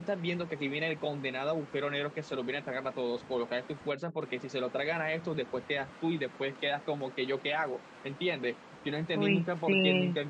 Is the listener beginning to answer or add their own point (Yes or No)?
No